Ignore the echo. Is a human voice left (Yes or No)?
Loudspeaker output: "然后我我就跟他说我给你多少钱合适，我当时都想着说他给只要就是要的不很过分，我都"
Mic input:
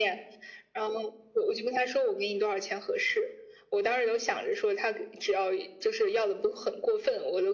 No